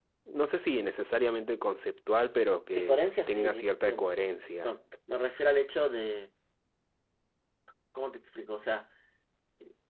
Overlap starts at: 2.7 s

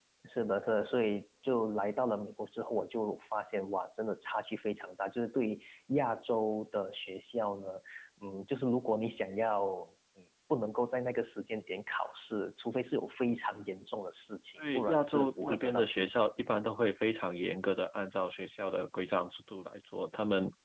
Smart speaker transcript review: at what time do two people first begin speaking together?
14.6 s

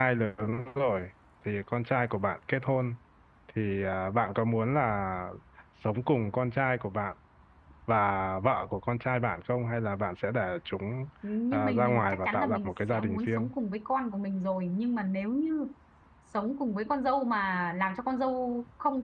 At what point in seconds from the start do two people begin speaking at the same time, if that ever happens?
11.5 s

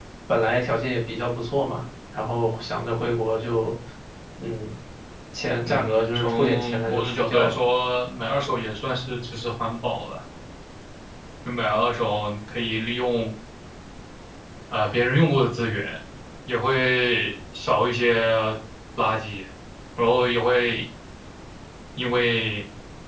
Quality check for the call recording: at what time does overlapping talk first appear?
5.6 s

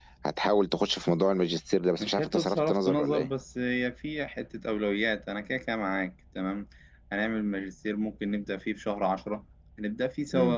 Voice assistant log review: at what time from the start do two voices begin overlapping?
2.0 s

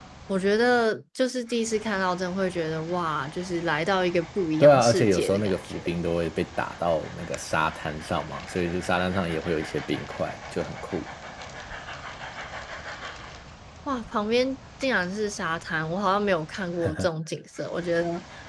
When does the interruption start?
4.6 s

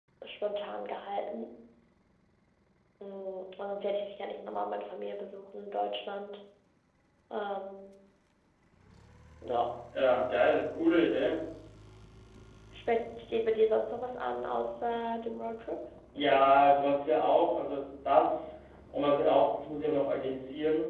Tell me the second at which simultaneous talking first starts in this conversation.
none

